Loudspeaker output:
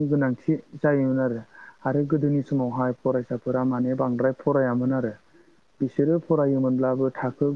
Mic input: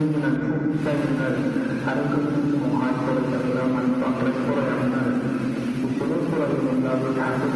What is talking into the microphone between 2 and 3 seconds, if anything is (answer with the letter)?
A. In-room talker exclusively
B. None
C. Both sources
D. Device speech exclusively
D